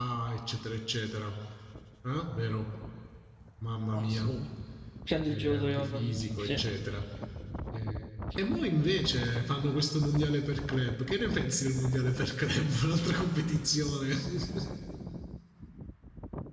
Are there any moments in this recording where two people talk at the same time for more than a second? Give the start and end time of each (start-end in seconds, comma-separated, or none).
5.3-6.6